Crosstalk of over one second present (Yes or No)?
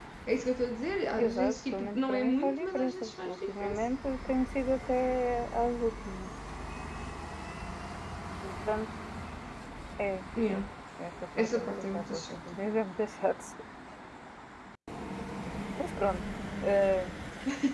Yes